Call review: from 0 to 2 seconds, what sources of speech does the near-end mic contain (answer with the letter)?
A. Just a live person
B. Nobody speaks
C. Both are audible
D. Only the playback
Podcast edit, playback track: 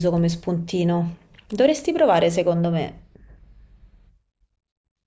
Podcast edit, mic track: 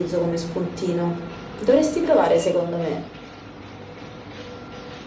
D